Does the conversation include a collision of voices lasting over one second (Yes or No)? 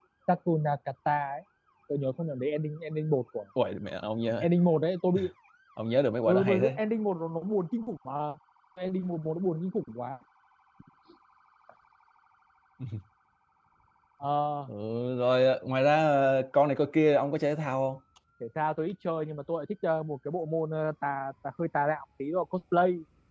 No